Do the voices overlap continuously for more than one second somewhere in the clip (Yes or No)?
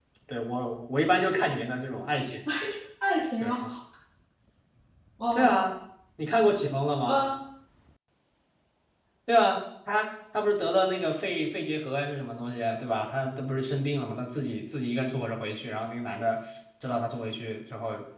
No